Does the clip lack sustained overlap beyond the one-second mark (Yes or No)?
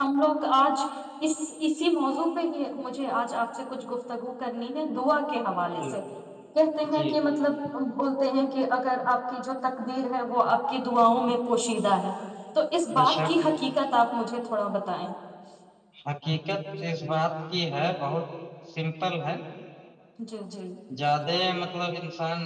Yes